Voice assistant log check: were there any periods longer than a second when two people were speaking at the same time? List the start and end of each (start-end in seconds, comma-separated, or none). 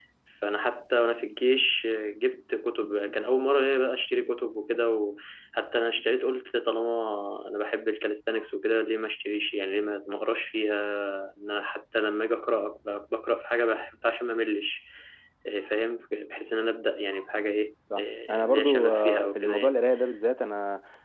18.0-19.8